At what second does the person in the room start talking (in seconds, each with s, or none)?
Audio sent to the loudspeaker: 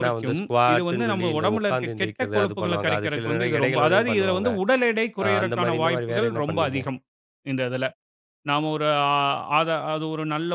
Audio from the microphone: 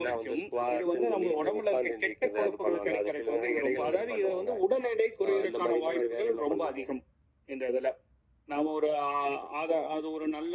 none